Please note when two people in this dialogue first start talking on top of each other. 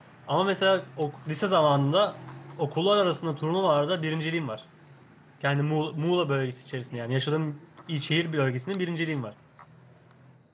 none

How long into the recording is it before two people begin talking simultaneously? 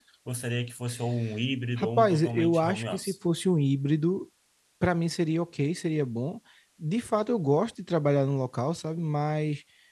2 s

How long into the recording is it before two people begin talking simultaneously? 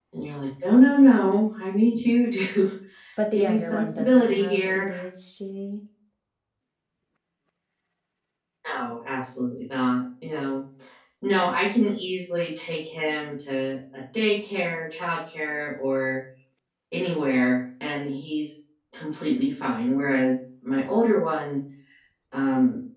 3 s

